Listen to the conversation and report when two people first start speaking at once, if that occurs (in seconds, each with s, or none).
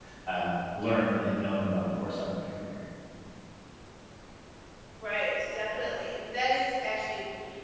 none